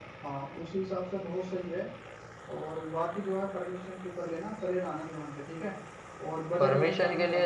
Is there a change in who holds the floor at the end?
Yes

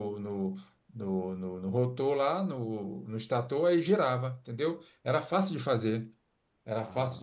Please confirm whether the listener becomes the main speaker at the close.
No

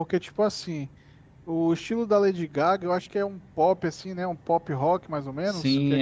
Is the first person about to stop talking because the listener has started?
Yes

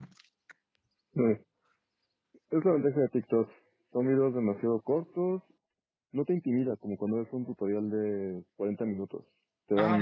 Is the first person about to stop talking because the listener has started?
Yes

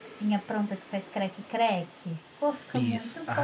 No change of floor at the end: No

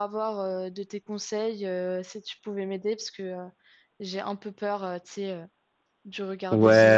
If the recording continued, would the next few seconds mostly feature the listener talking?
Yes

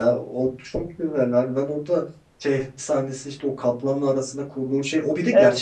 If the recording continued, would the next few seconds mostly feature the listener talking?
No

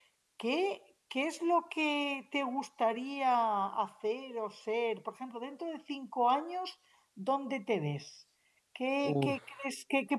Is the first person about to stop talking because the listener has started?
No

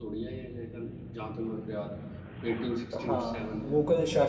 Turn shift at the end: Yes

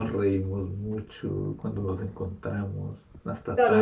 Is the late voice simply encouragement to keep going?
No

